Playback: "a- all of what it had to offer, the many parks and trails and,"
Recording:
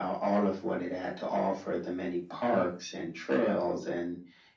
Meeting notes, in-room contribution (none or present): none